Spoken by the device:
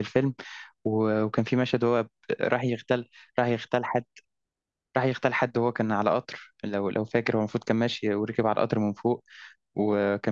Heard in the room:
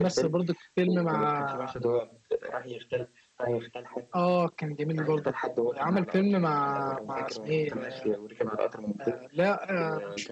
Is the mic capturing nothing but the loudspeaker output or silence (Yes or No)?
No